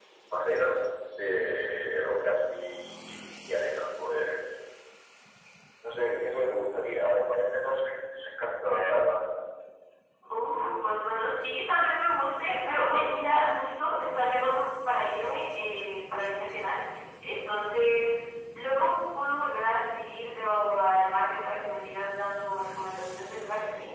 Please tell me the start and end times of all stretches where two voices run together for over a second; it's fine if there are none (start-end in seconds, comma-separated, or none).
none